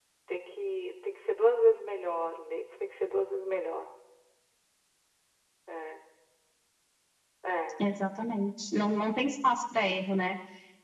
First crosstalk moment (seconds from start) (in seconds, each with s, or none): none